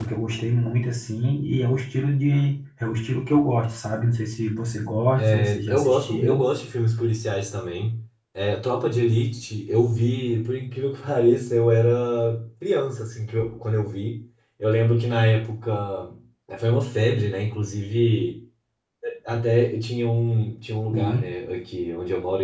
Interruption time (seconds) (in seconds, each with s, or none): 5.2 s